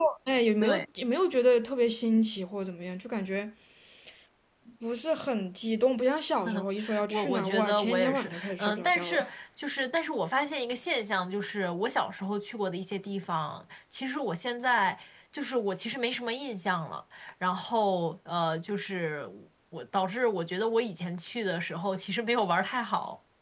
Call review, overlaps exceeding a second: present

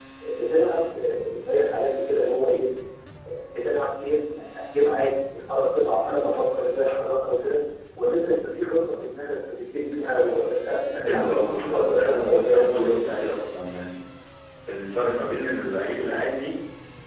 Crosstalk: present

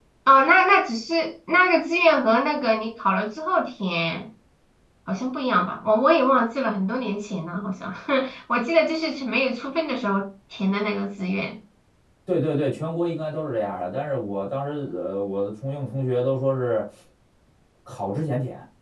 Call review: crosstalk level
none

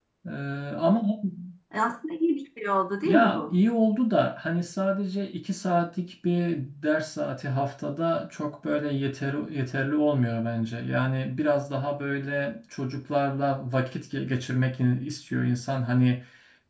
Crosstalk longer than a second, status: none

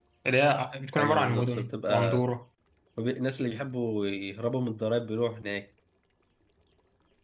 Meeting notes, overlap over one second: present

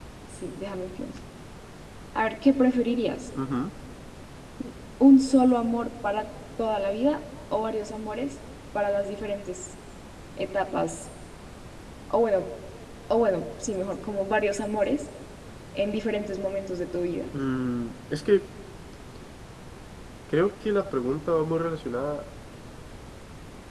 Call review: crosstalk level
none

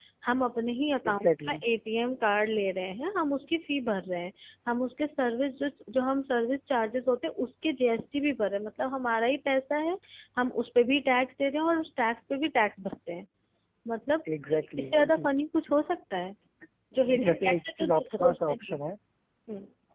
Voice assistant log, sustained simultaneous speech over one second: present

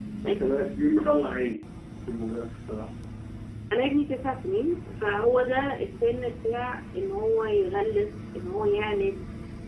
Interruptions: none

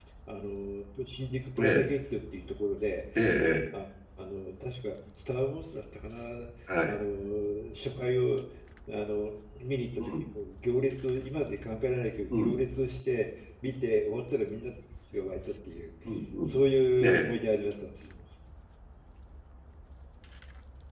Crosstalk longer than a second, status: none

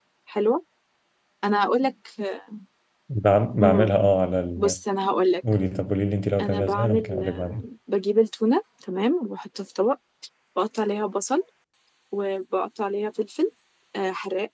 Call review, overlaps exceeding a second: present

